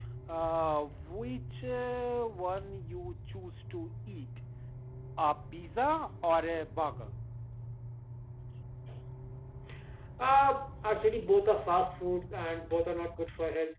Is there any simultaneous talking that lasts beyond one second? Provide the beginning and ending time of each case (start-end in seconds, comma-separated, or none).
none